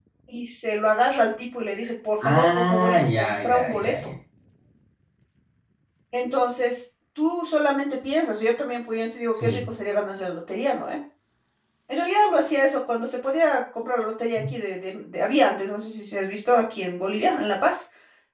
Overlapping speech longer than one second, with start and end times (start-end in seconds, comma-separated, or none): 2.2-4.1